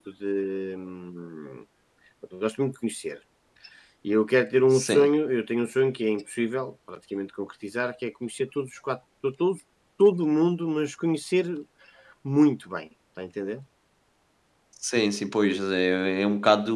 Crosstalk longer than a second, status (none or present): none